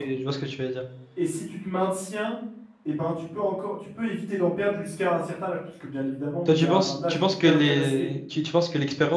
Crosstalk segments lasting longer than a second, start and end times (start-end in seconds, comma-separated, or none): 6.5-8.1